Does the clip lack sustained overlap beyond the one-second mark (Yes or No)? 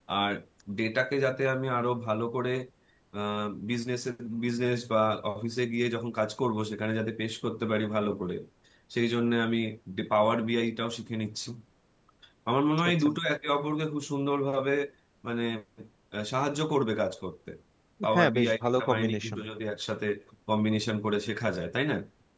No